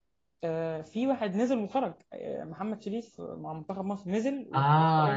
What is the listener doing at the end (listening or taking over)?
taking over